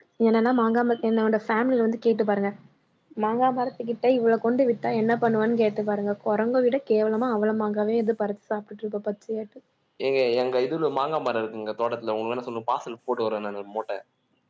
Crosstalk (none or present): none